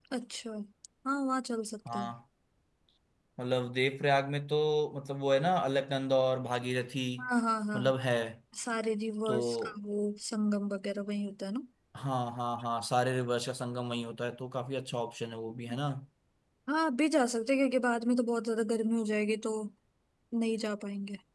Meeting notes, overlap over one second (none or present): none